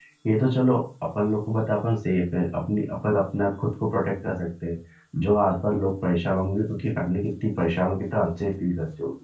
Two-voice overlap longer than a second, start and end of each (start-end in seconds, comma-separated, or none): none